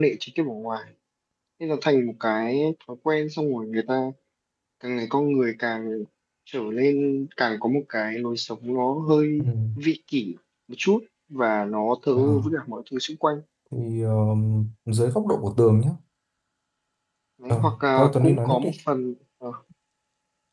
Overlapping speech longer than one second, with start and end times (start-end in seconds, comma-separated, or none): 17.5-18.7